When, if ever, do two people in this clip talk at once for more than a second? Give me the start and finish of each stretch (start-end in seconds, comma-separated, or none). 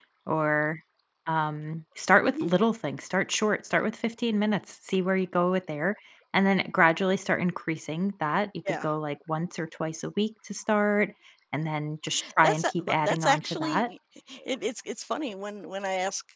12.4-13.9